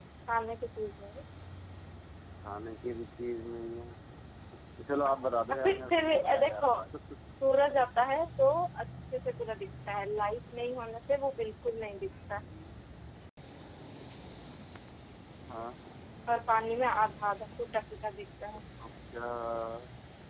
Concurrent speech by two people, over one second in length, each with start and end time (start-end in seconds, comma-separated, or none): 5.0-6.7